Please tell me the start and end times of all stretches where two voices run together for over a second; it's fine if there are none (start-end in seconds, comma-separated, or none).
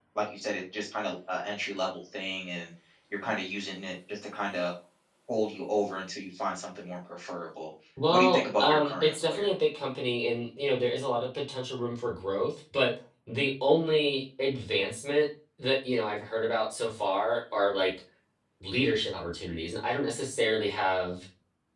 8.1-9.5